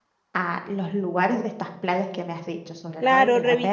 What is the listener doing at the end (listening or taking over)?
taking over